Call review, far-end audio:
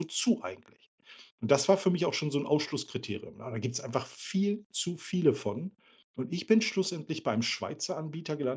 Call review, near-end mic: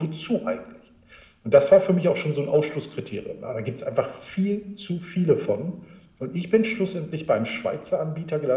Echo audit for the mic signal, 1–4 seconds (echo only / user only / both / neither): echo only